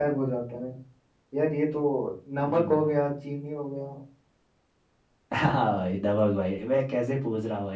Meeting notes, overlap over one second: none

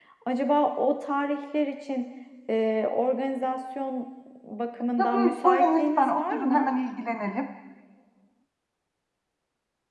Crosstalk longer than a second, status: present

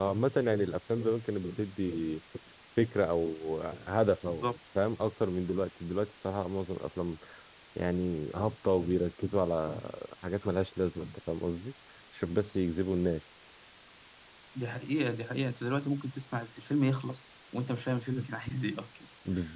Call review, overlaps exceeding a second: none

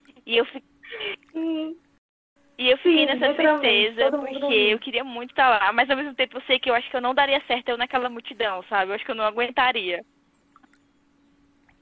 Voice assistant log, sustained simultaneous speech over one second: present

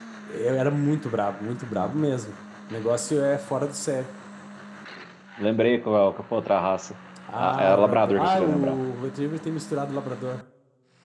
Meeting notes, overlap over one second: present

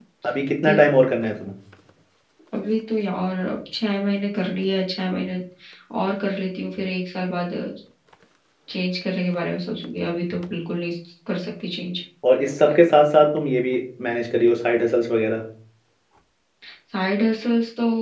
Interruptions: none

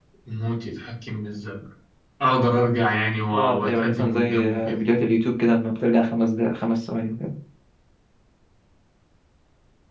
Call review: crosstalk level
present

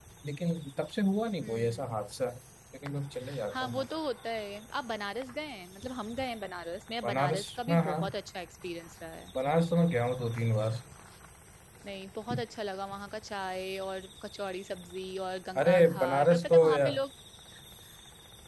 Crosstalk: present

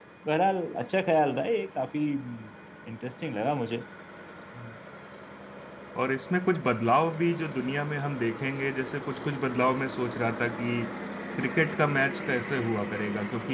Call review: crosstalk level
none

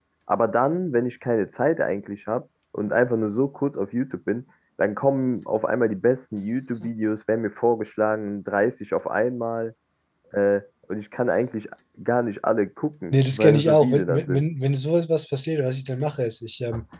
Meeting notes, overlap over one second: present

